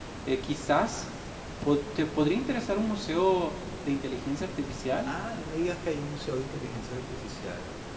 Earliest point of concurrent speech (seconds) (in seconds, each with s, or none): none